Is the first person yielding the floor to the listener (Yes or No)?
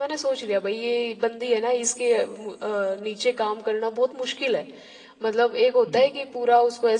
No